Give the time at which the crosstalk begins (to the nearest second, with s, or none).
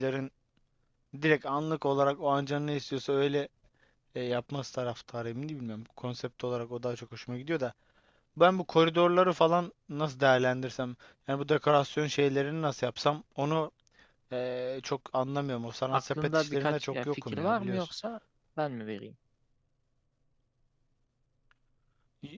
16 s